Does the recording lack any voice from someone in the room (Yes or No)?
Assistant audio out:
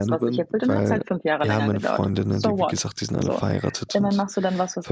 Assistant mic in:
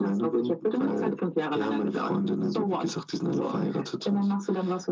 Yes